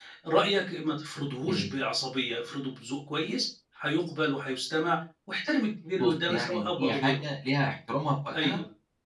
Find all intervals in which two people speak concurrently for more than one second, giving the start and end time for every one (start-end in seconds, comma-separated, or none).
6.0-7.3